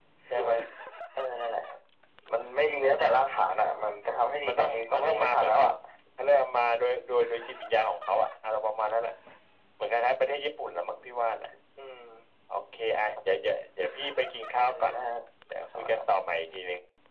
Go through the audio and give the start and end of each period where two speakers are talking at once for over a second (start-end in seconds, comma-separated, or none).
4.5-5.7